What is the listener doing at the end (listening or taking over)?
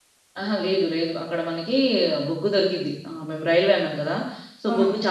listening